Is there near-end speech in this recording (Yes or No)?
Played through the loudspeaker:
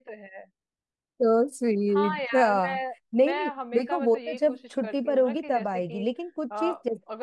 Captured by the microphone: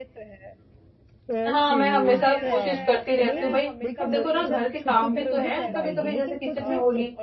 Yes